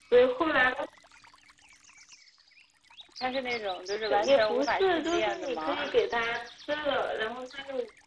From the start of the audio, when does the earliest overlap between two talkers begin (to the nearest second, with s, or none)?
4 s